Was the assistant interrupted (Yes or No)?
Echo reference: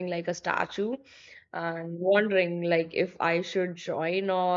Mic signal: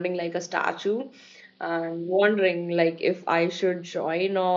No